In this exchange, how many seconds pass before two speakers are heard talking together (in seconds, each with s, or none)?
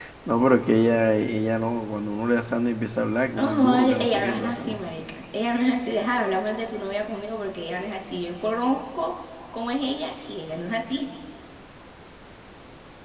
3.4 s